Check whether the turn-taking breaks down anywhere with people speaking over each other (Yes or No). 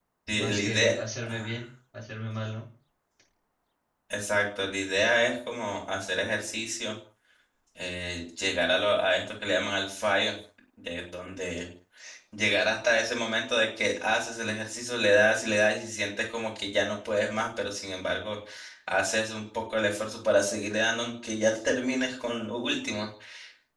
Yes